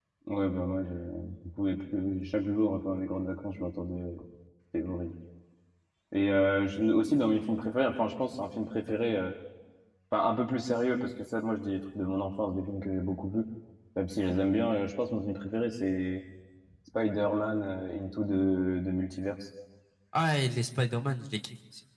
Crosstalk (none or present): none